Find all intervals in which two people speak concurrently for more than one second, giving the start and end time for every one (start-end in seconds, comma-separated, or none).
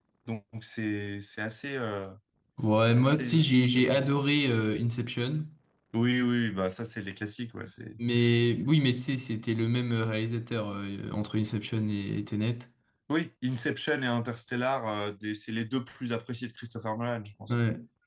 2.8-4.0